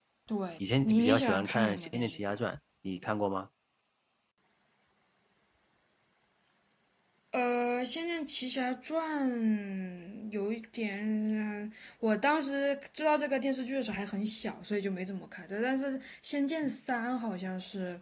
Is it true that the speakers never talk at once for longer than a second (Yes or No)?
No